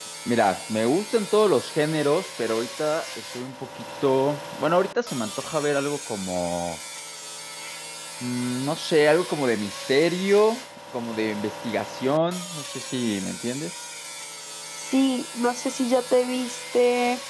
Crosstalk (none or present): none